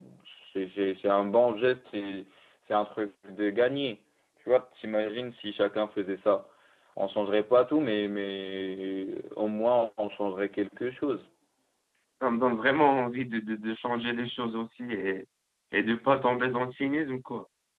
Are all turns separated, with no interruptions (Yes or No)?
Yes